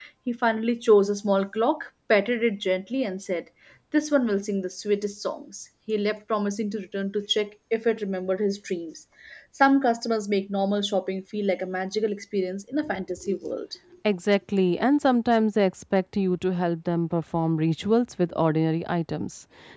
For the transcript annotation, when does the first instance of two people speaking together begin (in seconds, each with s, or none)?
none